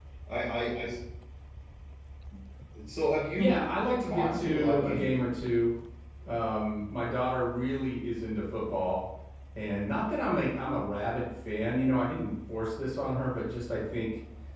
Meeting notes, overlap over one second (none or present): present